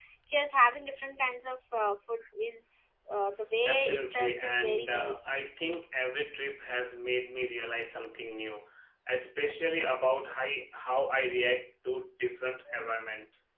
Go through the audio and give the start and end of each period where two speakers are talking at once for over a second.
3.6-5.4

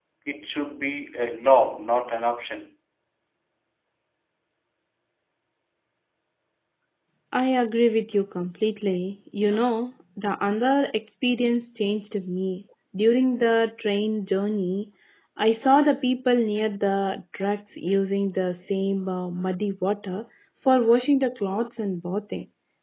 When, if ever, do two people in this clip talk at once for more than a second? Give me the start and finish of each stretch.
none

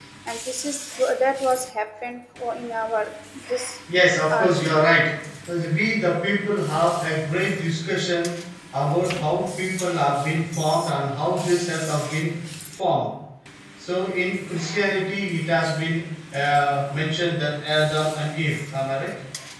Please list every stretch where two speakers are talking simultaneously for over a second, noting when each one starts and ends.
none

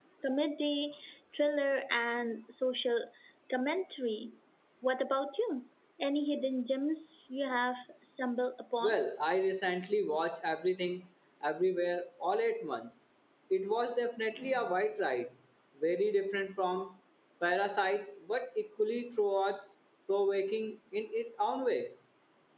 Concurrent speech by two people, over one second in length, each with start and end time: none

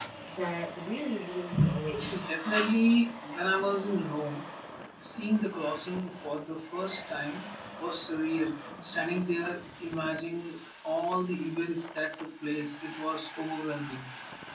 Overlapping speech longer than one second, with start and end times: none

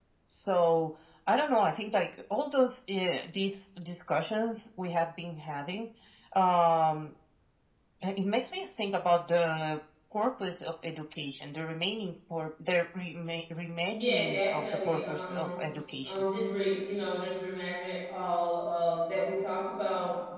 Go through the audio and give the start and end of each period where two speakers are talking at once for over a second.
13.9-15.5

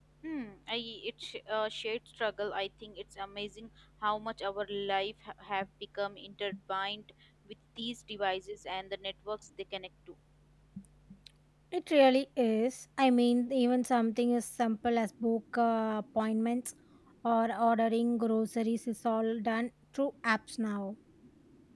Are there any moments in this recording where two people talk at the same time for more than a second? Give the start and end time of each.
none

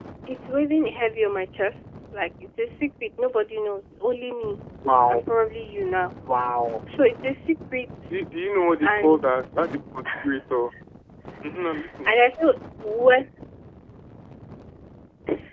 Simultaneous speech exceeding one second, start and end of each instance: none

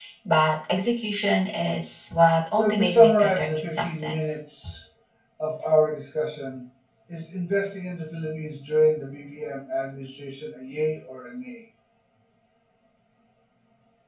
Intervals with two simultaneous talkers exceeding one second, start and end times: 2.5-4.4

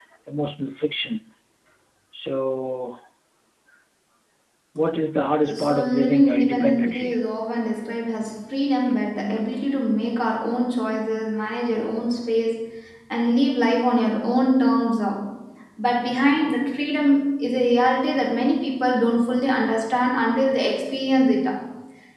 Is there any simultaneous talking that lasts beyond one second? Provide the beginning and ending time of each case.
5.6-7.2

